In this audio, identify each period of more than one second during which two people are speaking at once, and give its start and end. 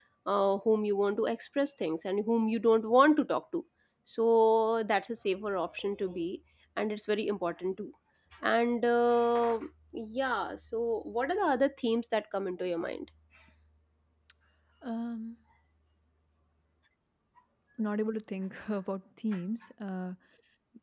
none

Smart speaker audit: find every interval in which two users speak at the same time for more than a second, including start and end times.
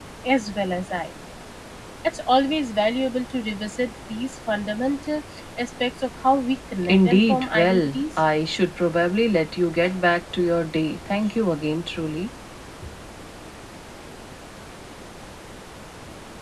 6.8-8.2

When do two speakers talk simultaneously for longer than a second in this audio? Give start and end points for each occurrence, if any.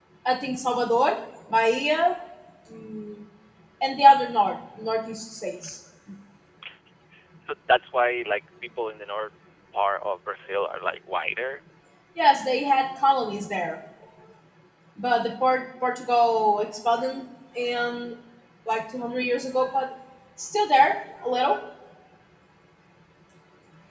none

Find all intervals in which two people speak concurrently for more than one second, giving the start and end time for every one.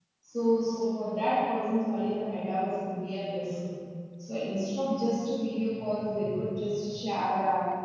none

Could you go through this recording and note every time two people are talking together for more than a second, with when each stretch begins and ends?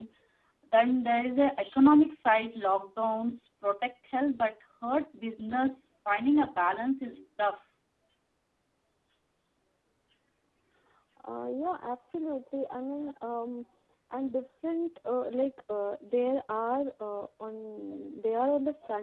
none

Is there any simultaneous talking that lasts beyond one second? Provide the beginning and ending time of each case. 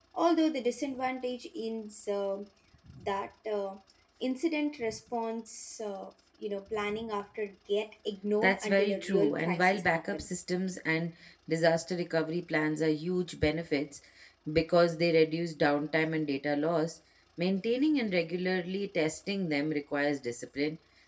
8.4-10.3

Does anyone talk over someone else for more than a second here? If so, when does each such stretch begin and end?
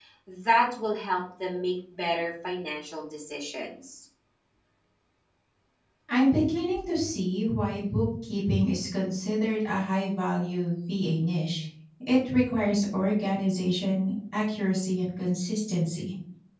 none

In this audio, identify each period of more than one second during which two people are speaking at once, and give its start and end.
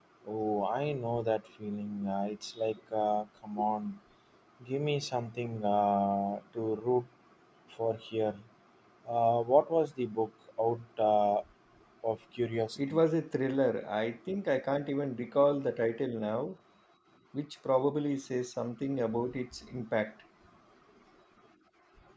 none

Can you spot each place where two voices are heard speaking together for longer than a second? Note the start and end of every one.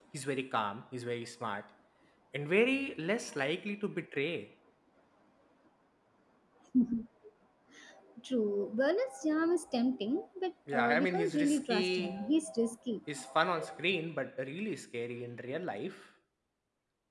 10.7-12.2

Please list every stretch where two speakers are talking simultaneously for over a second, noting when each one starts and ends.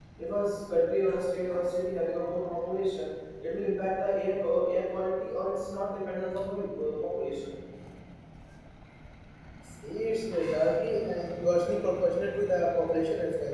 none

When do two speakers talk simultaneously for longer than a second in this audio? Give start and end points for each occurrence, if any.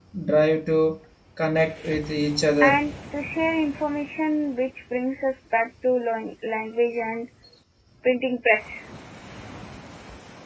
none

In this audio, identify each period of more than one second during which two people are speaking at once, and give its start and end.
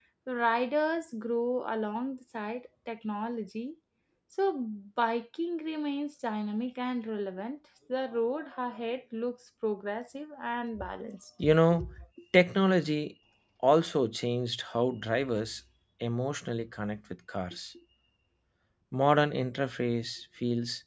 none

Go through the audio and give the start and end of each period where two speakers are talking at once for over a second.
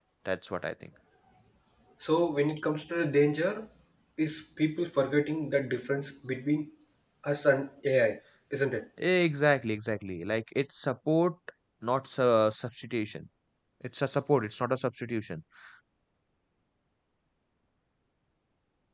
none

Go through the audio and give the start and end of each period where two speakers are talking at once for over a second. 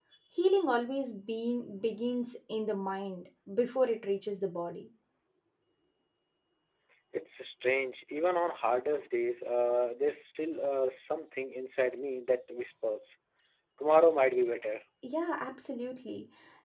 none

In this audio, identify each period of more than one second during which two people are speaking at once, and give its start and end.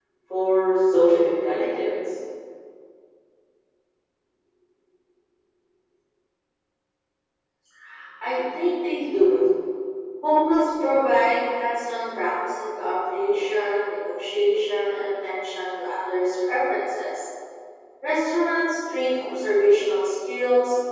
none

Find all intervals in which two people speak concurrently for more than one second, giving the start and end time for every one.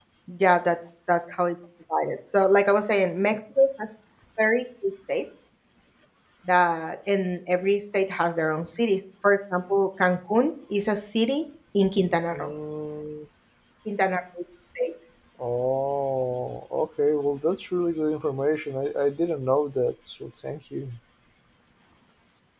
none

